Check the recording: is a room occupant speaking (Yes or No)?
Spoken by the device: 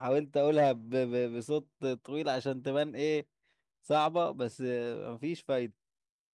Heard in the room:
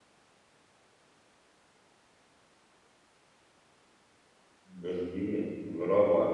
Yes